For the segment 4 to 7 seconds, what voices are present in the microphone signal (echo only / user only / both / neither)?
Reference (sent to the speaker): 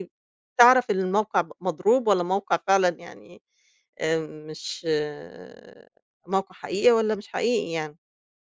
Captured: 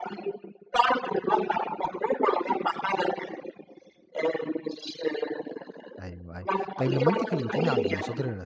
both